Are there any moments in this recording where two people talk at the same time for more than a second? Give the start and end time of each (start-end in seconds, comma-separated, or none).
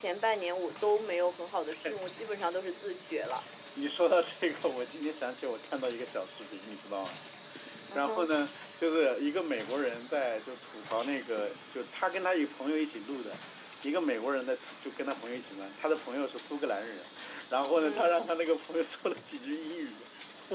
none